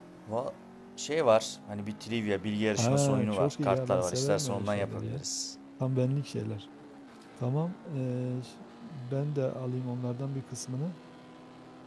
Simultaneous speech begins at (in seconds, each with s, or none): 2.8 s